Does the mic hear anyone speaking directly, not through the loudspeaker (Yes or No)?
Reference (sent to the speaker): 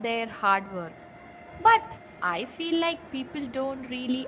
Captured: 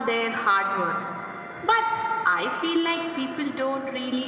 No